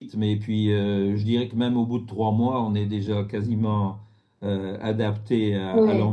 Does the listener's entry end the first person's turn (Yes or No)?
Yes